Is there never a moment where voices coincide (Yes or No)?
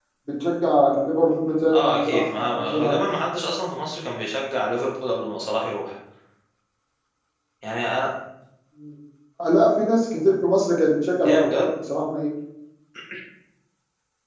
No